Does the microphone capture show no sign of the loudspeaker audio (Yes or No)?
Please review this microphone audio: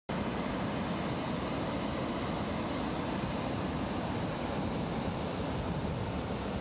Yes